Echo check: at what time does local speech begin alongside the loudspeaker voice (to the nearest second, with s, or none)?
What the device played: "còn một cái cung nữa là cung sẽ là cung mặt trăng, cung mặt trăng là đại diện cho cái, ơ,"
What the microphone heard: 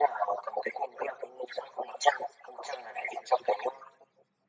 none